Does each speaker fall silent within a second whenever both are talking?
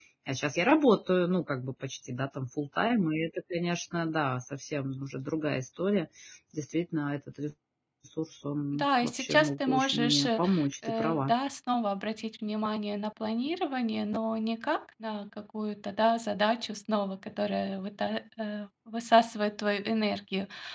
No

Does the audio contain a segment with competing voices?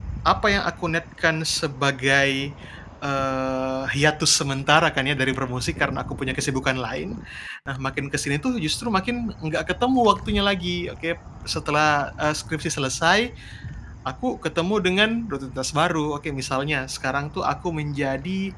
No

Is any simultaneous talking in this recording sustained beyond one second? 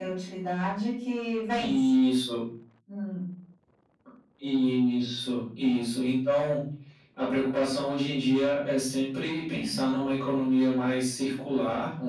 No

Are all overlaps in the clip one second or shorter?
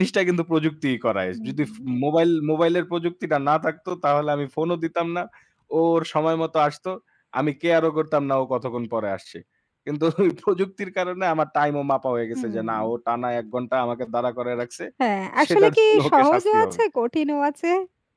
No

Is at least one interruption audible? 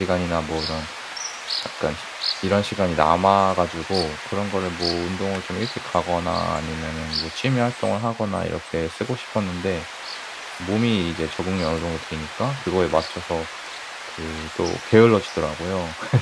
No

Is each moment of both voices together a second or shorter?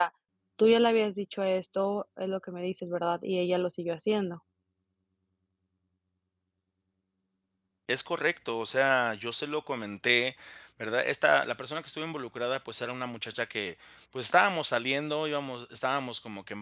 Yes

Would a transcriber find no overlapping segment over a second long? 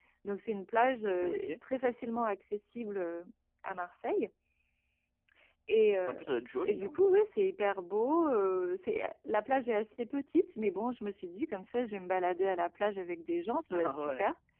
Yes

